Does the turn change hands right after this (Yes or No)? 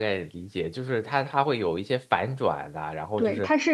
Yes